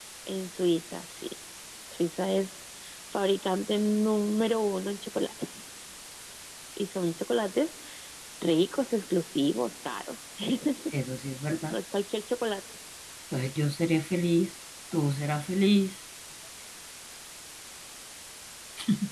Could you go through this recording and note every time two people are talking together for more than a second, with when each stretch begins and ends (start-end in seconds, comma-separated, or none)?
none